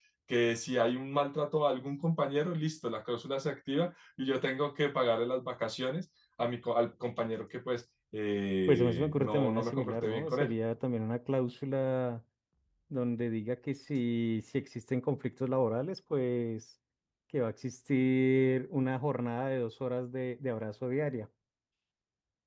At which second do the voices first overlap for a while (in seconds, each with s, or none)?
8.7 s